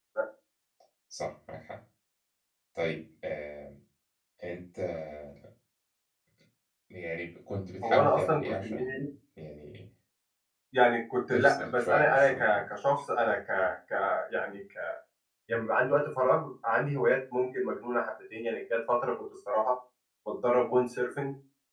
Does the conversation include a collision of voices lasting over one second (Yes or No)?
Yes